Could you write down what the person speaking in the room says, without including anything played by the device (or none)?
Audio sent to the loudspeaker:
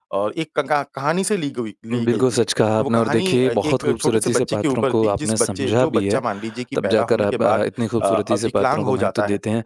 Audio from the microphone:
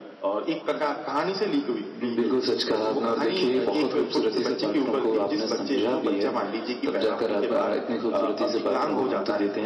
none